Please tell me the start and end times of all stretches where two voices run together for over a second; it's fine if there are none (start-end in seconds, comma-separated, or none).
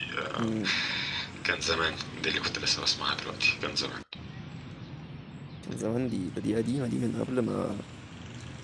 none